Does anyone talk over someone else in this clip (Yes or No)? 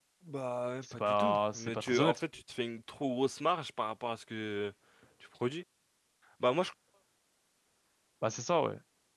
Yes